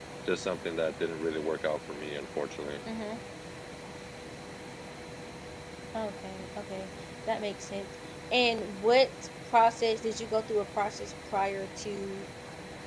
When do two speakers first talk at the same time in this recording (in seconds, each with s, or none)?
none